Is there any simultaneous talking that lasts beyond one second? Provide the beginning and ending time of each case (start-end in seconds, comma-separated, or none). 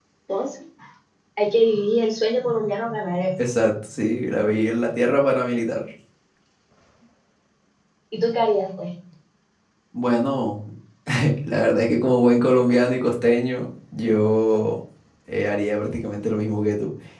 none